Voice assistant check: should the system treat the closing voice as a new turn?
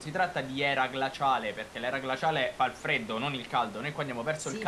Yes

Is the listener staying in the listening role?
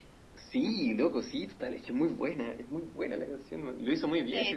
No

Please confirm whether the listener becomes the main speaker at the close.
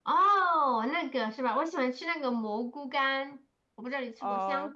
Yes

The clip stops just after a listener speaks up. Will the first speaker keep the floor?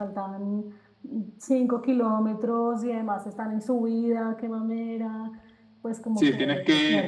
No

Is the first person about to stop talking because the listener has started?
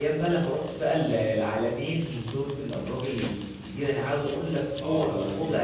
Yes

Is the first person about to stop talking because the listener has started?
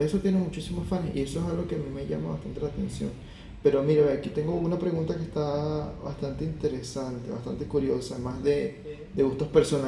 No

